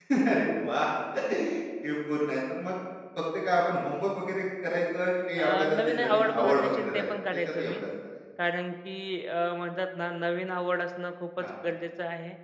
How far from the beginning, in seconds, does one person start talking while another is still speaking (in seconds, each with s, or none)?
5.4 s